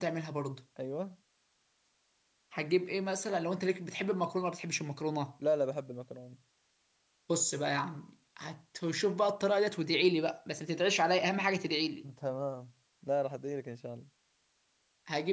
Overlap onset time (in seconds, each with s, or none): none